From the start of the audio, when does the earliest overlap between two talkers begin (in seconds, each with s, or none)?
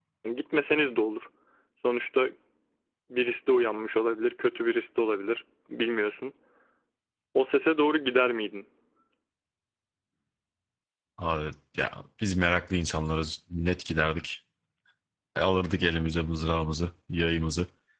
none